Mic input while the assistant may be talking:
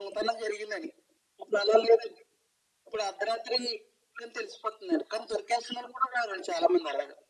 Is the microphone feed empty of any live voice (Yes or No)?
Yes